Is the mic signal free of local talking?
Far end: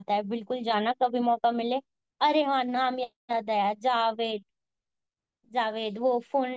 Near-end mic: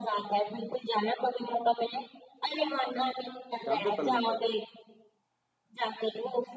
No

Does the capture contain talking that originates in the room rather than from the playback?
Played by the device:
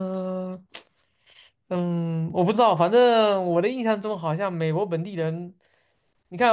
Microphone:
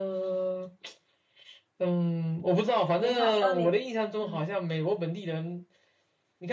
Yes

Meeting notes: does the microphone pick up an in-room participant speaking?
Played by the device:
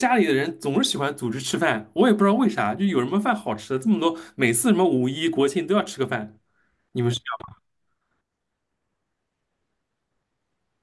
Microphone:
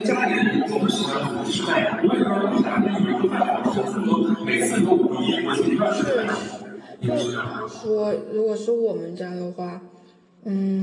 Yes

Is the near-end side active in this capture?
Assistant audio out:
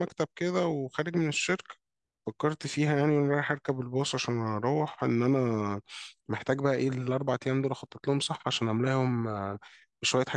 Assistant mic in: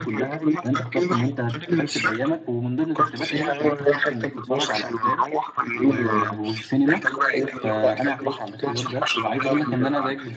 Yes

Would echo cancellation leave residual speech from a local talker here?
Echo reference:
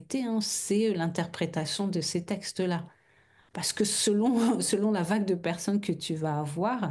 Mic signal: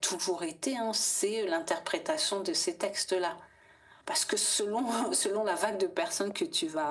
No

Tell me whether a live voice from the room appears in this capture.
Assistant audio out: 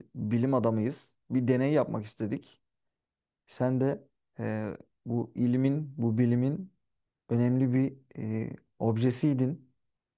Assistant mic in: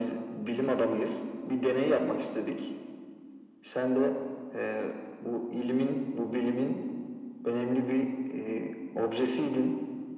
No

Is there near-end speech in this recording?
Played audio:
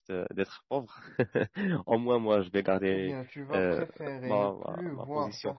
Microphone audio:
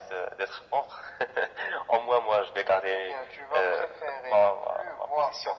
No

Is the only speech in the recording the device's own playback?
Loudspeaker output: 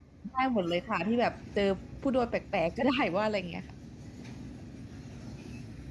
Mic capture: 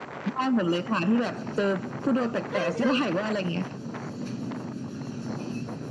No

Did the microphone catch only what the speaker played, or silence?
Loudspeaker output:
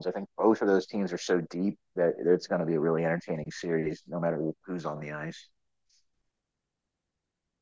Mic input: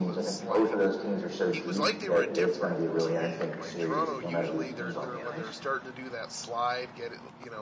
No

